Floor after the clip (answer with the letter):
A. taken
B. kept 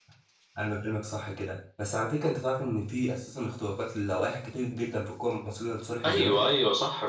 A